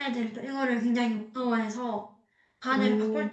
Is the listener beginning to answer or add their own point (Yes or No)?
No